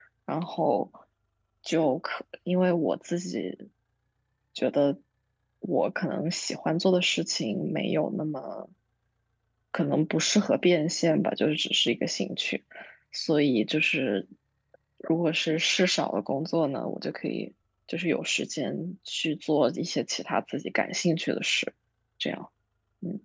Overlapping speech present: No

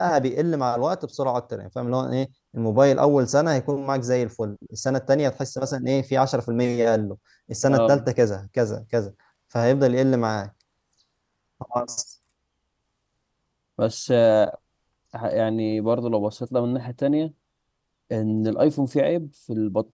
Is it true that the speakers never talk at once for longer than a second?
Yes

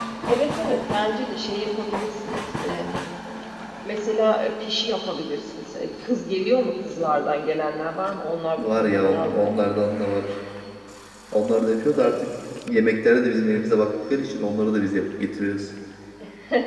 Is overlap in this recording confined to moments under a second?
No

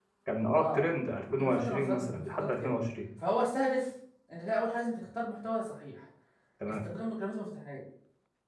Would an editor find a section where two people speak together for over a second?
Yes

